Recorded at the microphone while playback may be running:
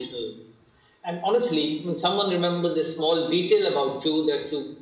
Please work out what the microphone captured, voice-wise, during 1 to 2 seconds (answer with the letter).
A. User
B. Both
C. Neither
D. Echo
D